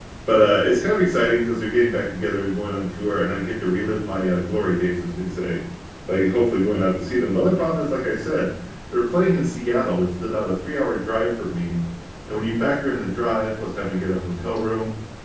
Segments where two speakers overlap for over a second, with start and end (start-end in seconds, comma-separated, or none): none